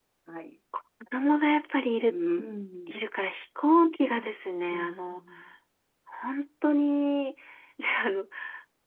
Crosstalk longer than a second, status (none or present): none